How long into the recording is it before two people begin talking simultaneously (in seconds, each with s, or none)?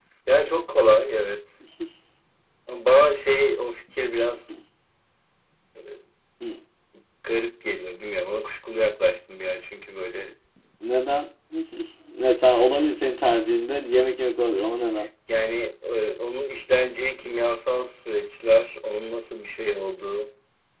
none